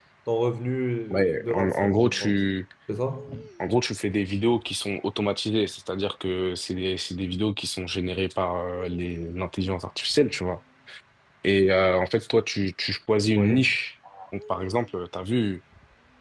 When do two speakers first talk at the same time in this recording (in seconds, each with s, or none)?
1.1 s